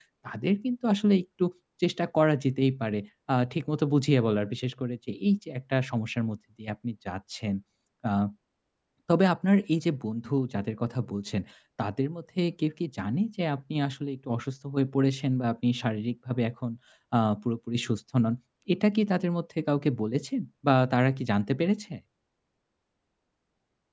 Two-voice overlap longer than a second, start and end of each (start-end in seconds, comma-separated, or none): none